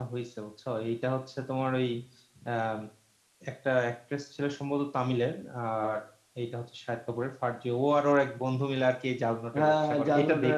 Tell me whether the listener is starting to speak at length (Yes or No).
Yes